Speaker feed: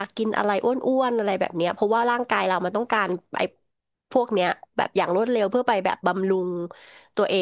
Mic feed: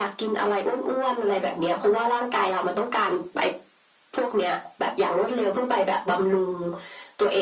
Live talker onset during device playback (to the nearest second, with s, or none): none